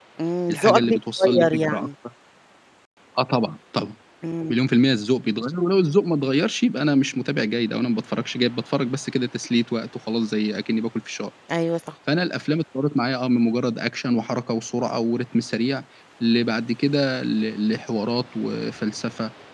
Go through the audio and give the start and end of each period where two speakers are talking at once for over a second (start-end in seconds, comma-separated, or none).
0.5-1.9